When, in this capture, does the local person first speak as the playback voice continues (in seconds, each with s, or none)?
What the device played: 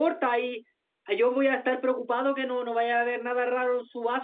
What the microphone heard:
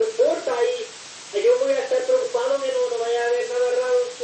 none